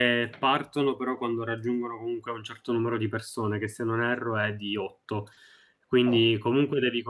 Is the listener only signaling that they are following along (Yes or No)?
Yes